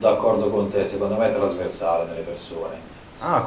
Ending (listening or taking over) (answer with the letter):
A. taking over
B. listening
A